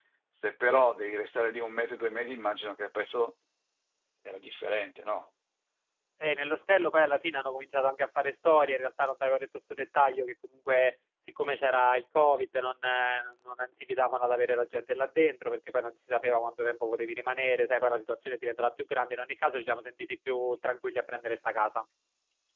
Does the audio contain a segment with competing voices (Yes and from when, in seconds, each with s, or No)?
No